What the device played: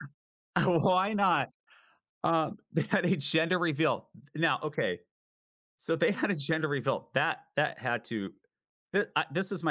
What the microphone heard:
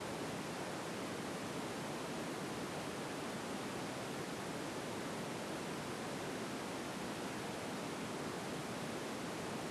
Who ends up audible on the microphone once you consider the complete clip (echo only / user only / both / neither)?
neither